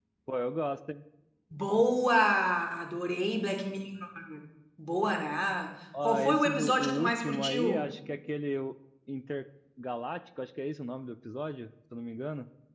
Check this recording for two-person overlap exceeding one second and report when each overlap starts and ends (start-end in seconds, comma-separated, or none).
6.0-7.9